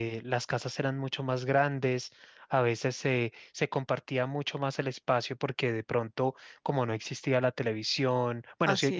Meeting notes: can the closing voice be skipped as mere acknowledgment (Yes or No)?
Yes